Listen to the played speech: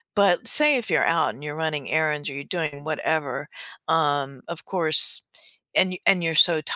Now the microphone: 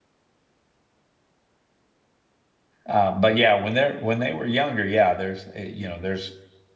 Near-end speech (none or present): present